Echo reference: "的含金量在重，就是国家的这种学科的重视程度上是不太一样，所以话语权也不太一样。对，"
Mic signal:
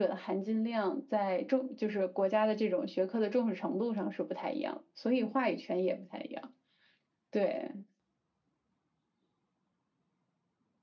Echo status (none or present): present